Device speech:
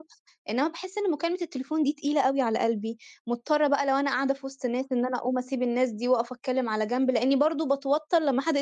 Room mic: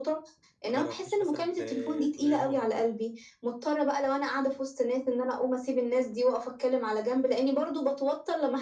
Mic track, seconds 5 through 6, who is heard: echo only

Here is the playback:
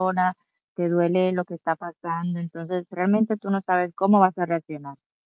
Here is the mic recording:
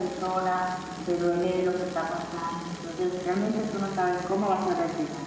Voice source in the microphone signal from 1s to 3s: echo only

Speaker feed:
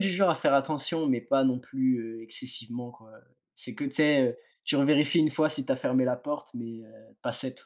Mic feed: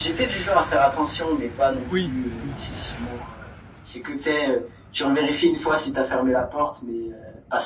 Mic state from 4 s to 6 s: echo only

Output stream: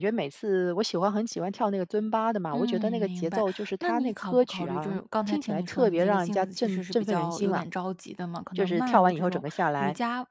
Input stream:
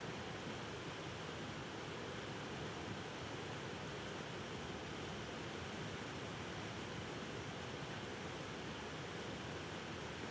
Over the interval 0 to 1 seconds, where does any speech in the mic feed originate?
neither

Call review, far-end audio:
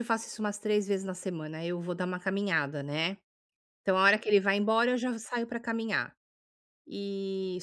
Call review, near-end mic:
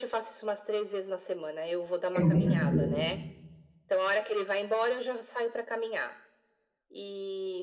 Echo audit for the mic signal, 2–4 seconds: both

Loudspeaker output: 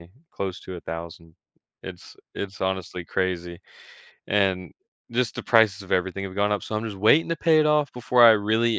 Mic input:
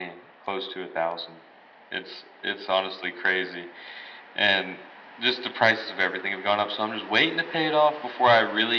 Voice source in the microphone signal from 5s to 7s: echo only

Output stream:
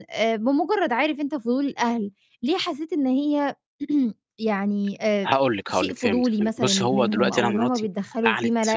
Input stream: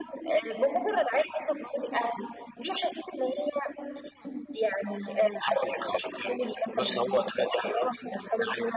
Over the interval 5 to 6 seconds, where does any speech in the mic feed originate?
echo only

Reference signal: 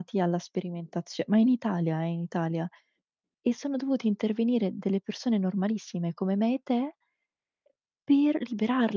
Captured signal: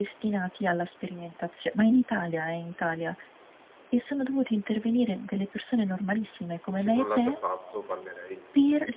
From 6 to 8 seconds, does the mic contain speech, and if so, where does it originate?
both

